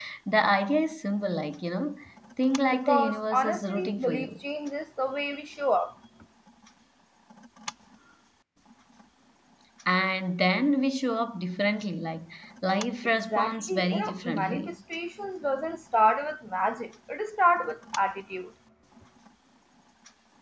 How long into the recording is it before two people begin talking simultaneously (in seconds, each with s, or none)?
2.7 s